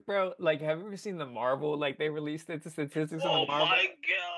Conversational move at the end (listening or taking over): taking over